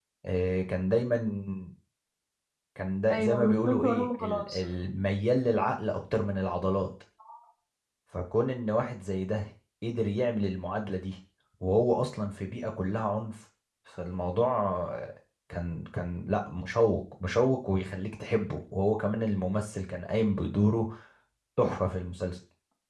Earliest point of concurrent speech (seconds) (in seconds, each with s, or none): 3.1 s